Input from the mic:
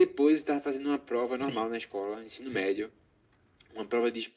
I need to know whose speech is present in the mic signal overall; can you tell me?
both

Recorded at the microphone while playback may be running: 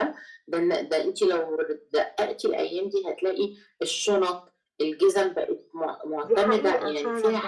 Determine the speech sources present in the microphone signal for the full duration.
both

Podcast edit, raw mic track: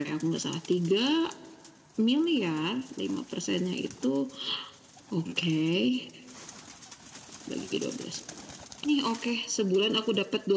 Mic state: echo only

